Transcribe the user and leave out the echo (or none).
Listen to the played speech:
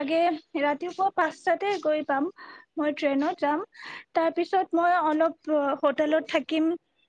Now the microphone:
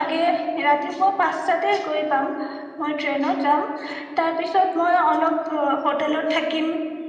none